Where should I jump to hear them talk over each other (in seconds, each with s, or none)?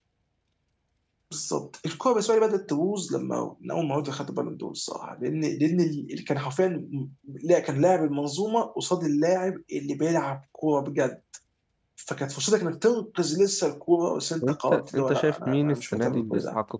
14.4 s